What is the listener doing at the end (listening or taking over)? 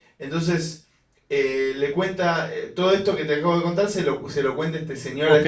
taking over